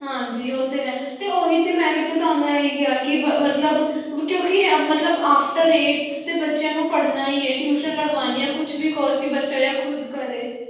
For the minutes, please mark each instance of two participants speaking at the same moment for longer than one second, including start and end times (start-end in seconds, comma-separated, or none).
none